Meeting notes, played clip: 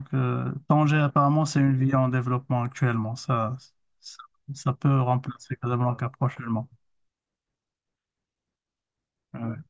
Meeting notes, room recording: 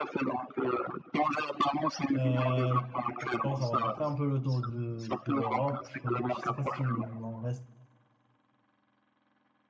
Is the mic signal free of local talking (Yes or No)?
No